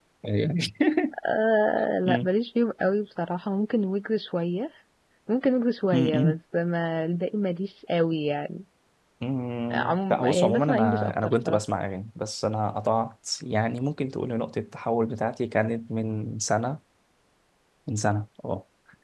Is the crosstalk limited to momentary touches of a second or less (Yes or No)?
No